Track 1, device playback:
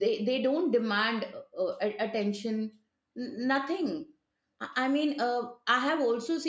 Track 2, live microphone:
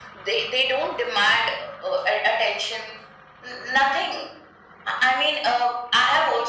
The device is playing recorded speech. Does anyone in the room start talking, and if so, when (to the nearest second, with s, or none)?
none